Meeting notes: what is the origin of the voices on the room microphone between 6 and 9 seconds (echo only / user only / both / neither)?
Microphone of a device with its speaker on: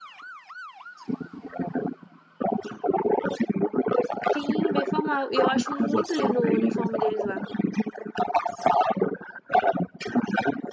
both